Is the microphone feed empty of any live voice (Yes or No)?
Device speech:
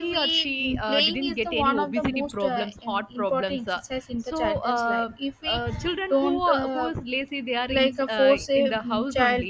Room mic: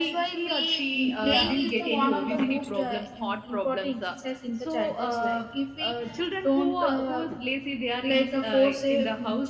No